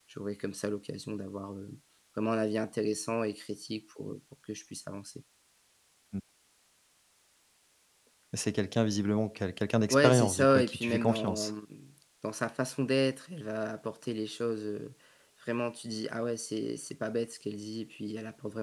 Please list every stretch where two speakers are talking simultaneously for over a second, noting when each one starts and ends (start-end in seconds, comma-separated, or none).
9.9-11.5